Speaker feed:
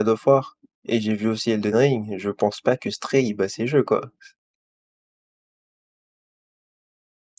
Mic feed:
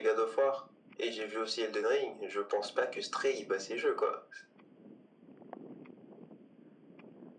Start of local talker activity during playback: none

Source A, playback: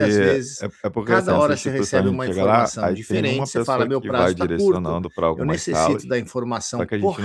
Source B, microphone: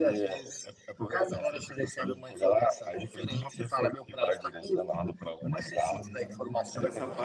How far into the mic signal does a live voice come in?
5.9 s

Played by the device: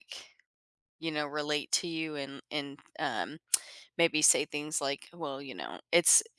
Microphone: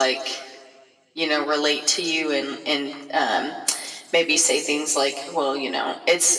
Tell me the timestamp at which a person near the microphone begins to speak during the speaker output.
none

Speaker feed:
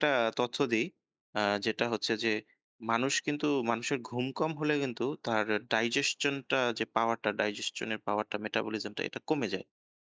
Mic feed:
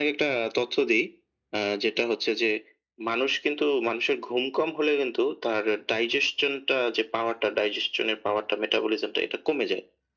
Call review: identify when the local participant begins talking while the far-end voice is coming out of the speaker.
none

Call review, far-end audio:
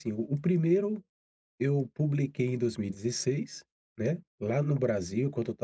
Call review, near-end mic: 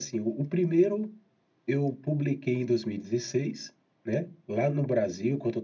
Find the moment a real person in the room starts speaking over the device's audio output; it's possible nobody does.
none

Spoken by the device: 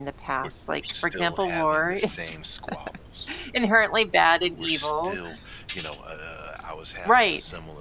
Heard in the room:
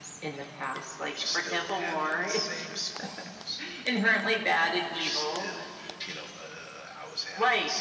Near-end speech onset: none

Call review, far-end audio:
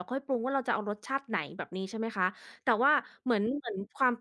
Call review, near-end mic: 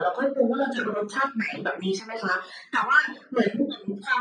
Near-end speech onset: none

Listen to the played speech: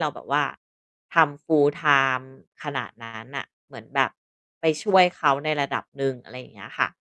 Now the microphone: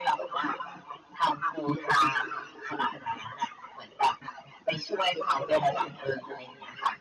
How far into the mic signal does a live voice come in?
none

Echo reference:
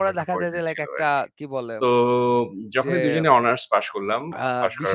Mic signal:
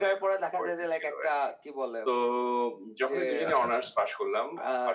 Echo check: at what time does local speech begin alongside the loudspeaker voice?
3.5 s

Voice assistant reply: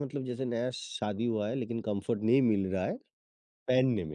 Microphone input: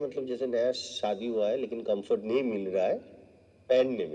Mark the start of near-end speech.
none

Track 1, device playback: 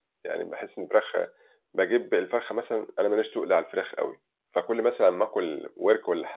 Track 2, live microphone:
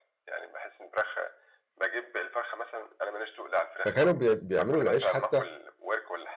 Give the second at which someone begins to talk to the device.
3.8 s

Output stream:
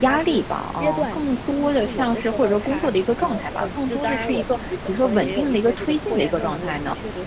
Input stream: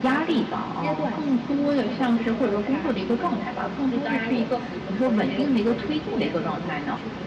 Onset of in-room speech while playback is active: none

